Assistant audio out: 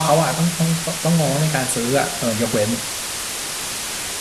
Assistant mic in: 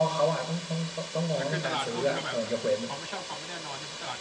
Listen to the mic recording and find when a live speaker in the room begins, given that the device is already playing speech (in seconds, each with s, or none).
1.3 s